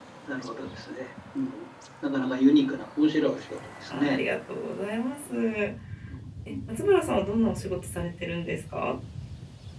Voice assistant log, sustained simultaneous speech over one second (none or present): none